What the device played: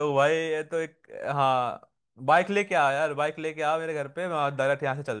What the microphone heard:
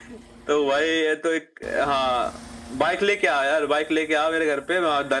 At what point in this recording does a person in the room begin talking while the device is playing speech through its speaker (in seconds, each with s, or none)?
none